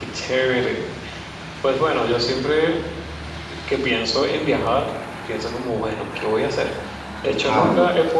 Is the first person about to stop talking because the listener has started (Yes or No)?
No